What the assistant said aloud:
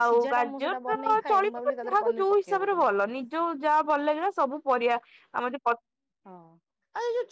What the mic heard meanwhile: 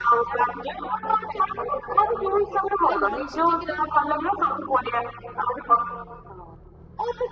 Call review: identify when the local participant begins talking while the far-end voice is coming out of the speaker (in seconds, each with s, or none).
2.9 s